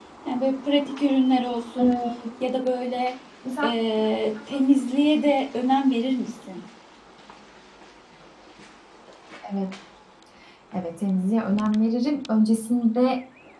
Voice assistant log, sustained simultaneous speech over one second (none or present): none